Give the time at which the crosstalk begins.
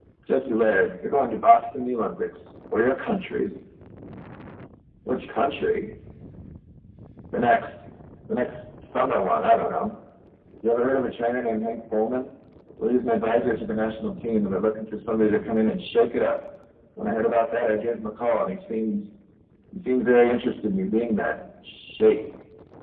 none

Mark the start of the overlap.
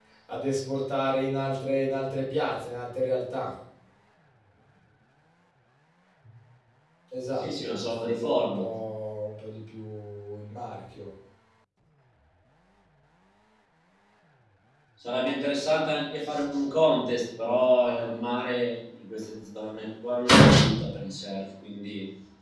7.4 s

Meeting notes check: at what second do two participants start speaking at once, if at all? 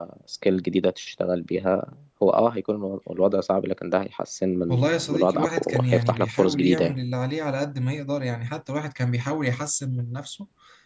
4.7 s

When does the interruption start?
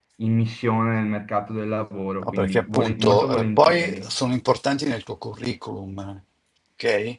2.2 s

